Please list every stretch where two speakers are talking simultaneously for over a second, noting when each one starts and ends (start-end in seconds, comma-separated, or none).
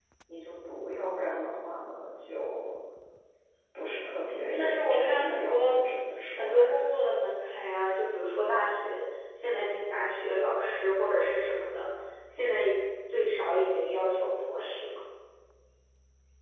4.6-5.8